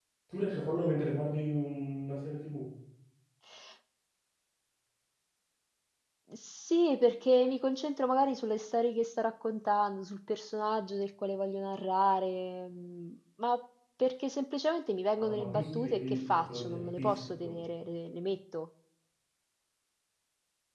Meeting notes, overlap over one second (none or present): present